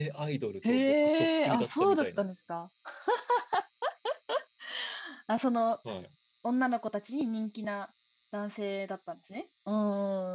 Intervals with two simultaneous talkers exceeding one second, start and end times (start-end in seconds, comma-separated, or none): 0.7-2.3